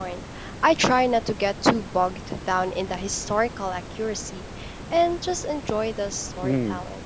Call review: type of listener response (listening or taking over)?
taking over